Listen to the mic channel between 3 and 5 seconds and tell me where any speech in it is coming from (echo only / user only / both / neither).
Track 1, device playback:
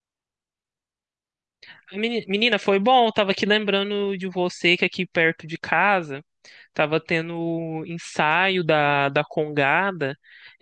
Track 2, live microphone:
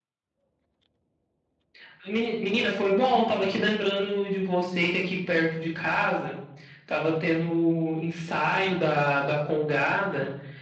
echo only